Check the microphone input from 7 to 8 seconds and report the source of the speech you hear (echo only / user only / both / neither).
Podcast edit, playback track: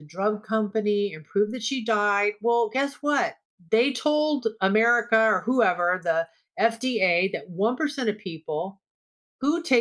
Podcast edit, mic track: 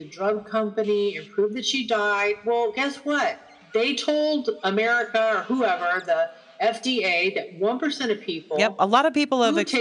echo only